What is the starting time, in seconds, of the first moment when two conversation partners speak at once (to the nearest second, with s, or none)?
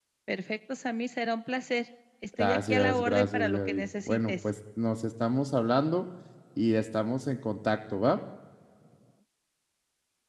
2 s